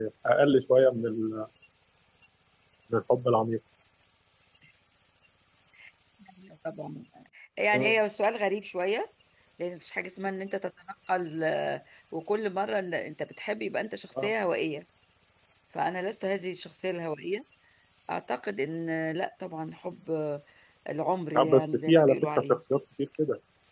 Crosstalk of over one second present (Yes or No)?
Yes